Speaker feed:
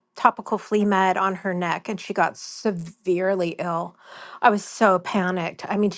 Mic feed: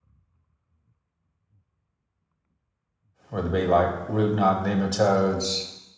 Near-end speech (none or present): present